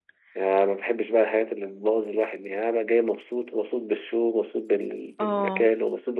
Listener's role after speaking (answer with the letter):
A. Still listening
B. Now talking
A